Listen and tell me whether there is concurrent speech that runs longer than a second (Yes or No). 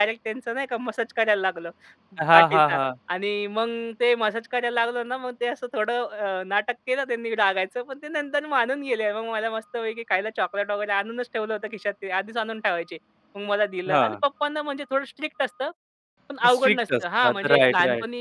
Yes